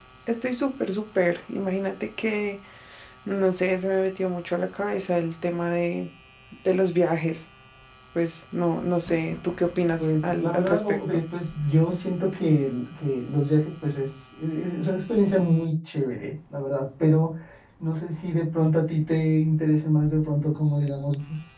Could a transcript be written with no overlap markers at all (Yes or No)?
No